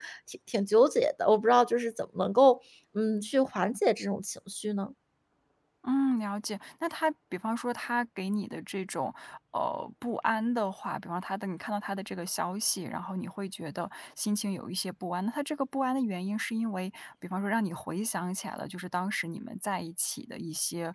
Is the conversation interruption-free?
Yes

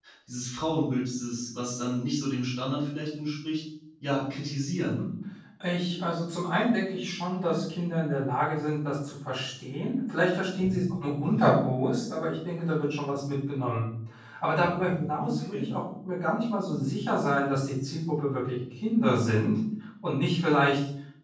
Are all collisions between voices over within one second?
Yes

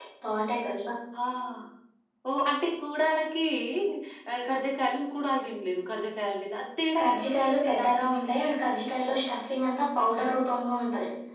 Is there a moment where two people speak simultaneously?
Yes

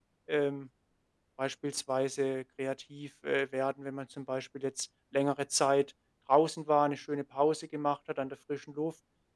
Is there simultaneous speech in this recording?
No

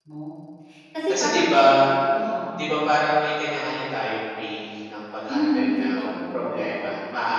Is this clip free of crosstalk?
No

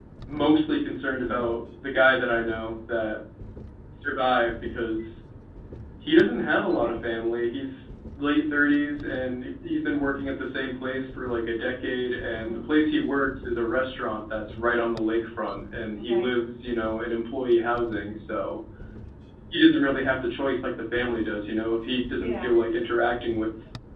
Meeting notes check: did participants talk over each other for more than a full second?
No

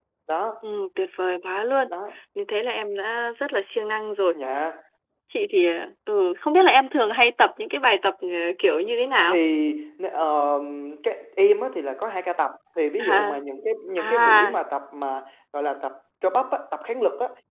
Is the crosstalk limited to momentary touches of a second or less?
Yes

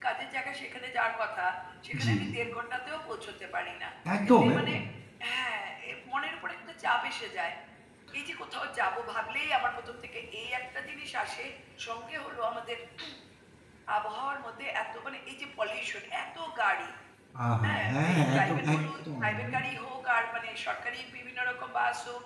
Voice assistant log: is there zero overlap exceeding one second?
No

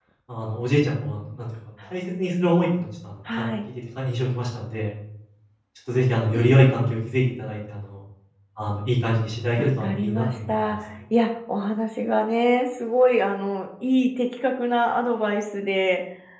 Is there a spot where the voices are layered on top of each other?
Yes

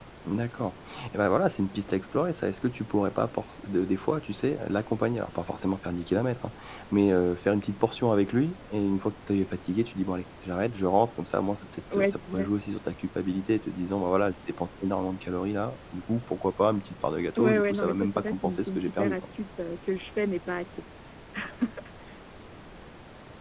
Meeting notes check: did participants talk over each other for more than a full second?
Yes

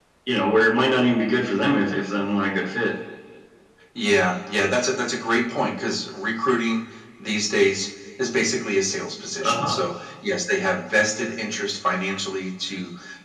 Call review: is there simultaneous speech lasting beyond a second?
No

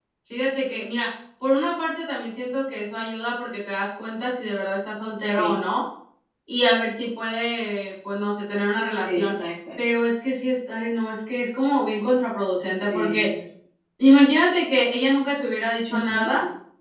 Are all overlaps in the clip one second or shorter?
Yes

